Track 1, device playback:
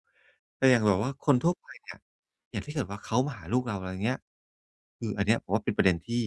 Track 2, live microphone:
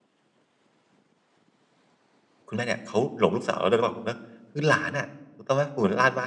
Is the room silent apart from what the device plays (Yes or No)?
No